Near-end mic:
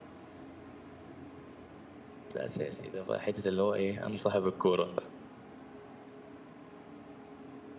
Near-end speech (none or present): present